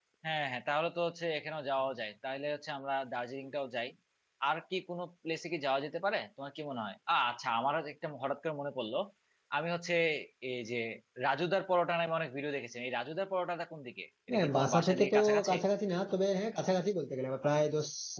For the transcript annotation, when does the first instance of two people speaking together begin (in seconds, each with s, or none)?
14.3 s